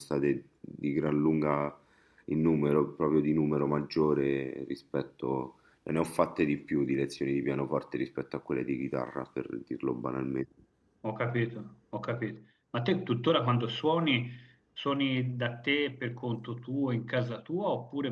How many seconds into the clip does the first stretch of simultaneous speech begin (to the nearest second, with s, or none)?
none